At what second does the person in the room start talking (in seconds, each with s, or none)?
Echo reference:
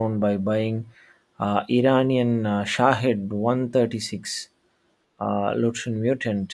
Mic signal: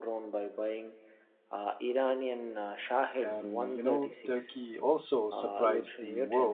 3.2 s